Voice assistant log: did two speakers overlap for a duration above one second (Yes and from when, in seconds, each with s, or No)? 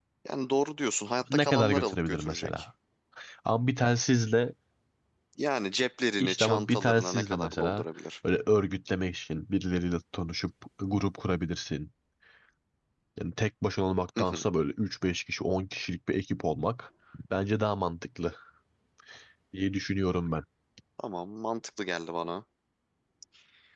Yes, from 1.3 s